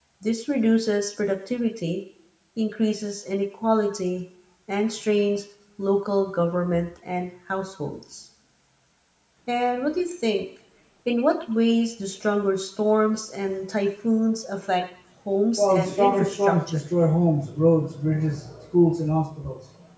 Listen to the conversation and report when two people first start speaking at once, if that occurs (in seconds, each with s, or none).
15.6 s